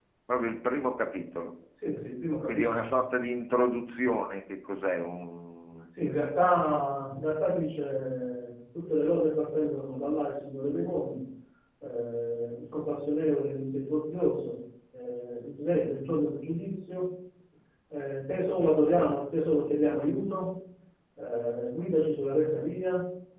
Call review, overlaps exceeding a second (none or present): none